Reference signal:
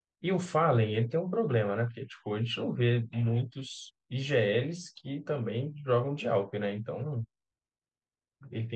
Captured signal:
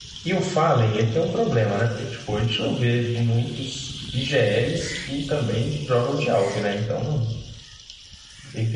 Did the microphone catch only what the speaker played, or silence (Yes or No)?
Yes